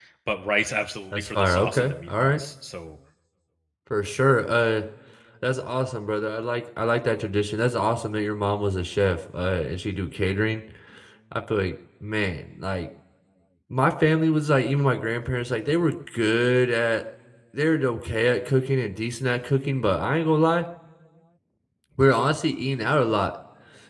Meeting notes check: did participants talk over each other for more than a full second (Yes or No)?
Yes